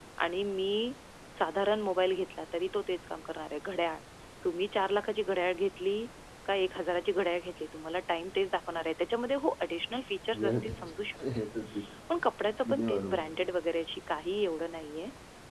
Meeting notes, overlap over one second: none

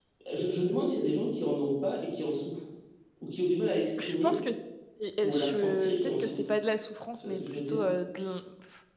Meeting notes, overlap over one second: present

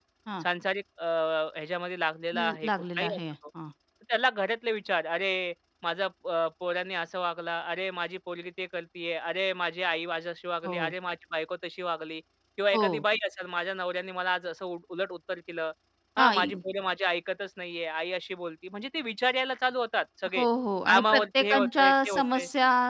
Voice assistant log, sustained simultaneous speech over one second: present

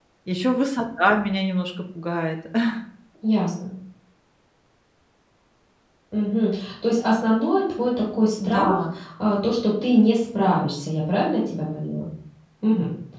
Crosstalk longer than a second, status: none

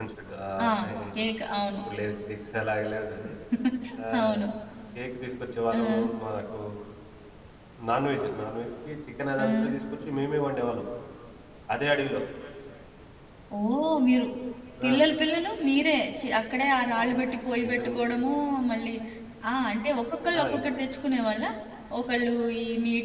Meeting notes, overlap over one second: none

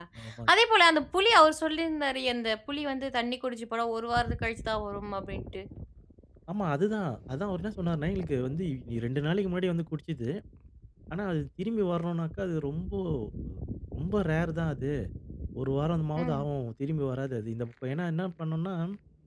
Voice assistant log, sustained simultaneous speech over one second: none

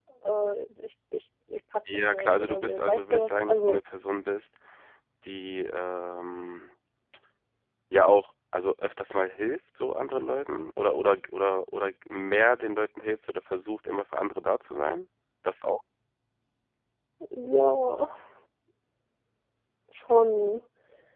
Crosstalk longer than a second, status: present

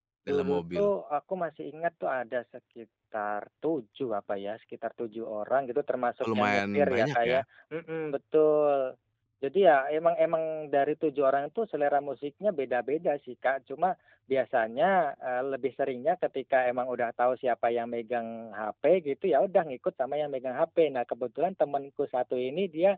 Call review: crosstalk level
present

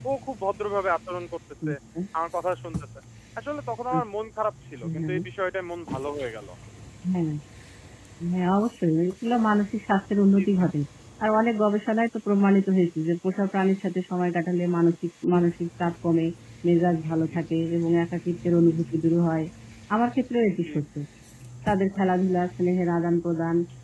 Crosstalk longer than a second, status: none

